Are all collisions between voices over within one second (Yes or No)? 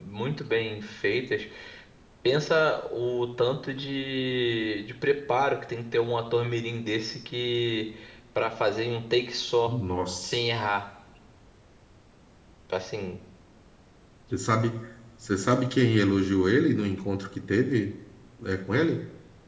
Yes